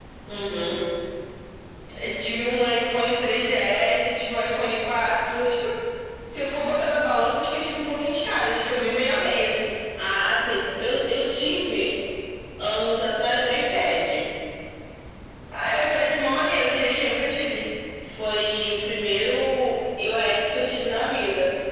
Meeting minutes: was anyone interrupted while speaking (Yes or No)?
No